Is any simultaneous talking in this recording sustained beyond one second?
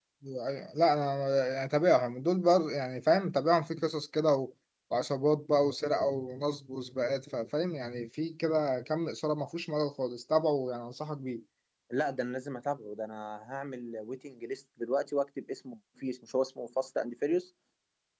No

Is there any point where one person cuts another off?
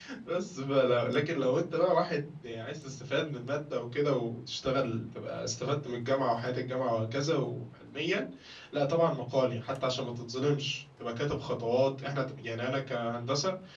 No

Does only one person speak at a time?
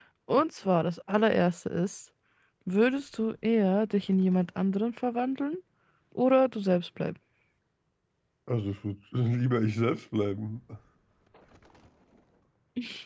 Yes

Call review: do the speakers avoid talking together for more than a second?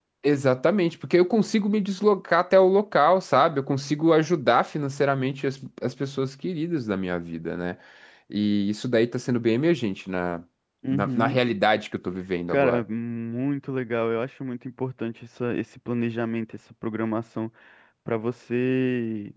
Yes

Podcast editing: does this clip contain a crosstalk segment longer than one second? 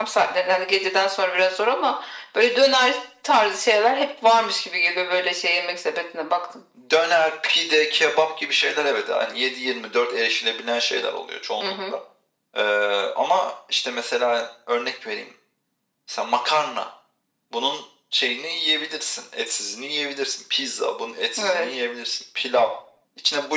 No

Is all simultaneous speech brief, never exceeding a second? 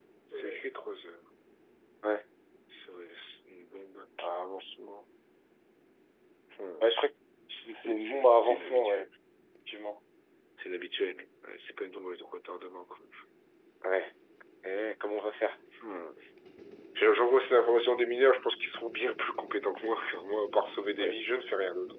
No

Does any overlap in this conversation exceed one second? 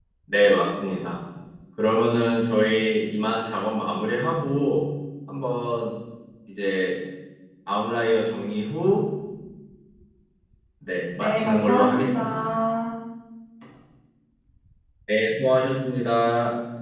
Yes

